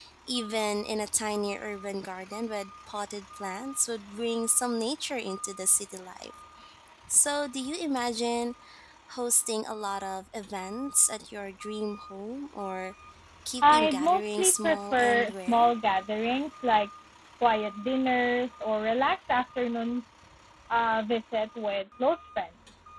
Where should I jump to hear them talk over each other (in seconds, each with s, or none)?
13.6 s